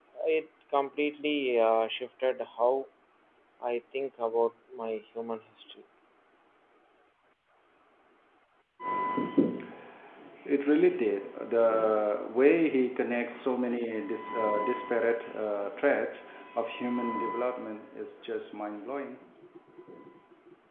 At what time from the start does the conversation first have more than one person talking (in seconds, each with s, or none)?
none